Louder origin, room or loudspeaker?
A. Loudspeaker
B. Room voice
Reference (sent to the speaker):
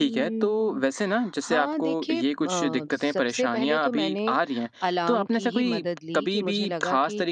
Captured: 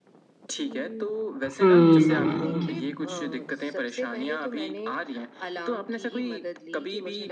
B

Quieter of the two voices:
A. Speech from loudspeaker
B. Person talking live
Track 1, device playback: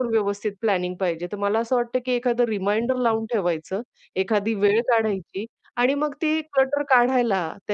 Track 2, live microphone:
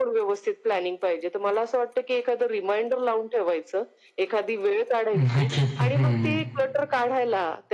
A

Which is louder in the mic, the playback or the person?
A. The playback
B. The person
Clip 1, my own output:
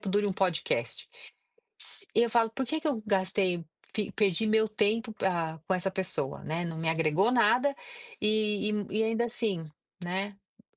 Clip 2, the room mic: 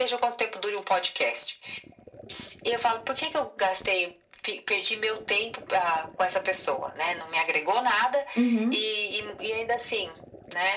B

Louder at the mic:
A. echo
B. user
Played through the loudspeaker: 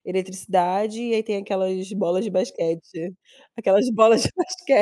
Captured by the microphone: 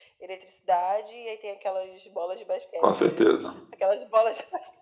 B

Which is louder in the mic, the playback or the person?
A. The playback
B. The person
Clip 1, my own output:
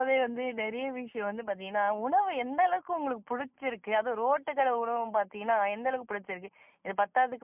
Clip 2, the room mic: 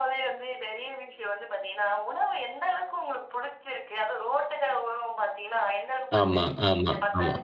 B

